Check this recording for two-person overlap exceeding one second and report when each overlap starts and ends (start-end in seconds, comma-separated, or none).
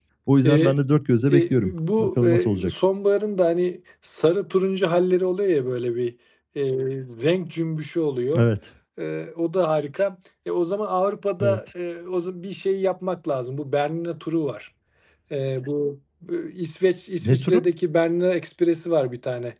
1.3-2.7